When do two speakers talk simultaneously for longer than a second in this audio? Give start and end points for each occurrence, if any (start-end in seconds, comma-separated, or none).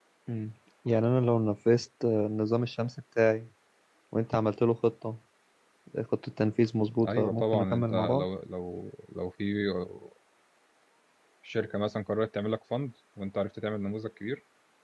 7.1-8.3